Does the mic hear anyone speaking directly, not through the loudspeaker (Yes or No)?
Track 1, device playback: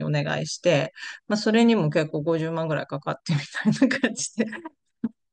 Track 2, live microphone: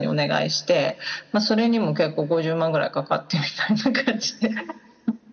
No